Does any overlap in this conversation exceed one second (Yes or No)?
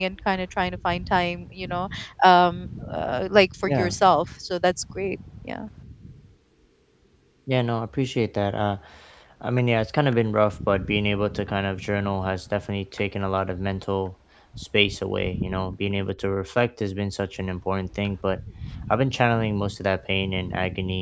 No